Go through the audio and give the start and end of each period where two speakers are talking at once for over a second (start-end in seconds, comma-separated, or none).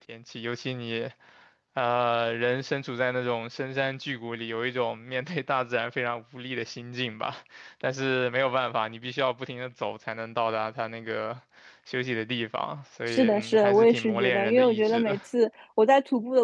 13.1-15.2